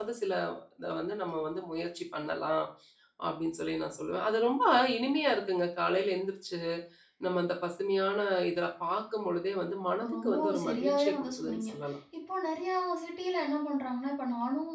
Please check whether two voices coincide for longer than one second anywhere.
Yes, from 10.0 s

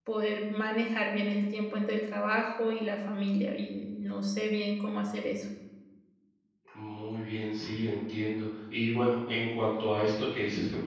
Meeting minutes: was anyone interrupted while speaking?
No

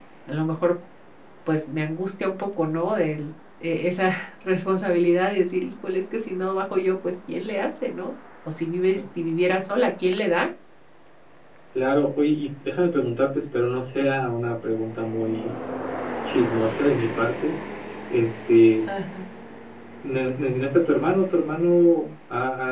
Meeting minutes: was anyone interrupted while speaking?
No

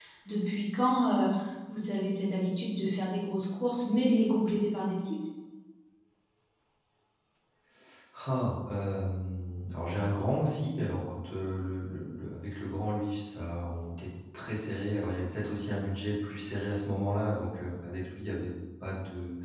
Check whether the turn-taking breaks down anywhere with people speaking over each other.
No

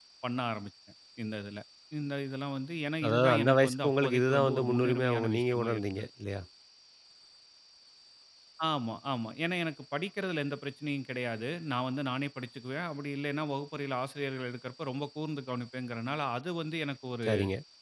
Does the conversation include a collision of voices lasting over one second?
Yes, from 3.0 s

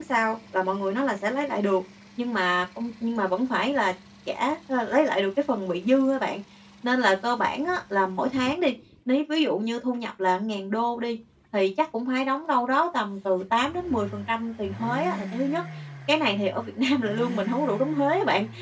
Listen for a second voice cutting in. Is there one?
No

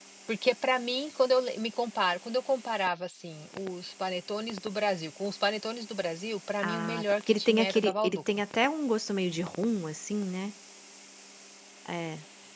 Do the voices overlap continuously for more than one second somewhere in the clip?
Yes, from 6.6 s

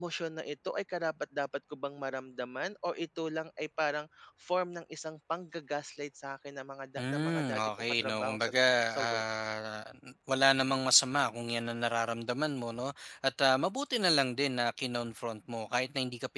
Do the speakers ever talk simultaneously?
Yes, from 7.0 s

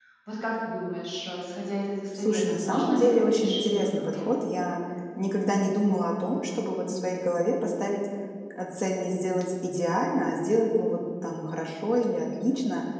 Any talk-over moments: Yes, from 2.1 s

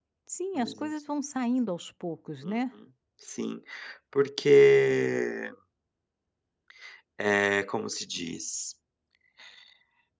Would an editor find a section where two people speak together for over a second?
No

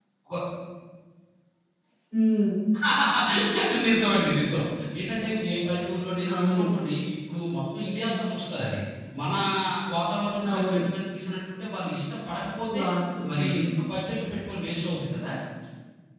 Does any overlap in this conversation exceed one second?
No

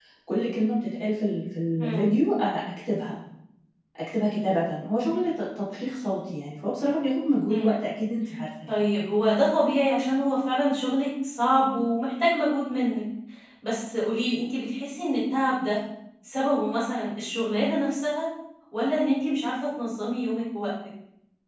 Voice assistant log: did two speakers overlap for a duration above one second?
No

